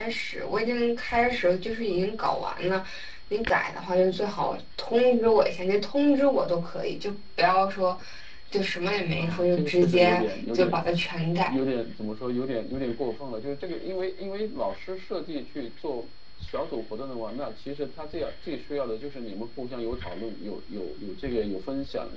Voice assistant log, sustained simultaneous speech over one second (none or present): present